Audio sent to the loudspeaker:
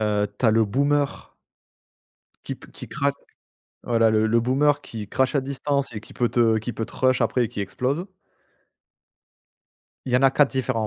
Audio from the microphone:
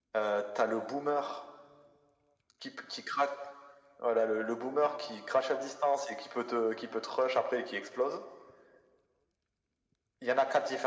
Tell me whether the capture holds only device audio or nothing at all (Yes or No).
Yes